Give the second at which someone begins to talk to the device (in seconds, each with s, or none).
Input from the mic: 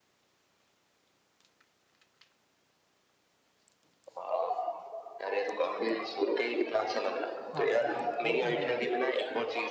7.5 s